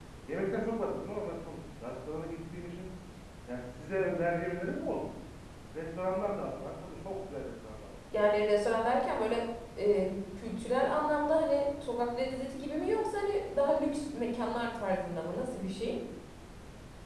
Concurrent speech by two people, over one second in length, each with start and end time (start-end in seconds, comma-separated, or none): none